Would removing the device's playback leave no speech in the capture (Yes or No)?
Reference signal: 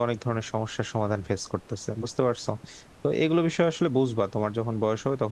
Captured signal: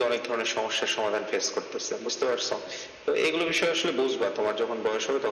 Yes